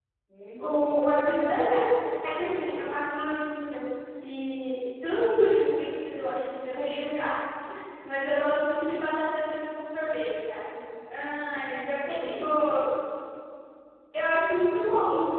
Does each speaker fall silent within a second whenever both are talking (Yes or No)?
Yes